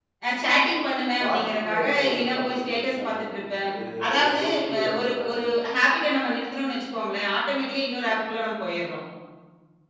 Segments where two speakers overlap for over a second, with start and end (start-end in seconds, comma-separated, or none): 1.2-3.7, 4.1-5.4